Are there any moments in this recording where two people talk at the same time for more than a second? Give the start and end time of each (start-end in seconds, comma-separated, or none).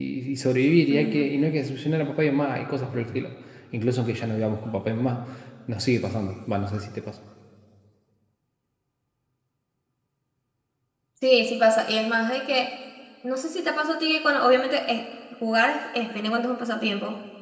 none